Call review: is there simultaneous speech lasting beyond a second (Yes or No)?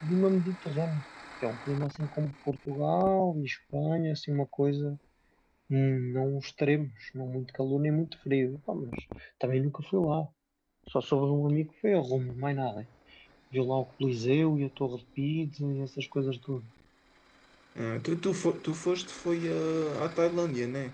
No